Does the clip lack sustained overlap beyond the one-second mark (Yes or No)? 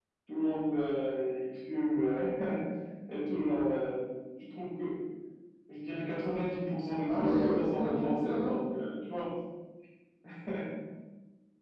No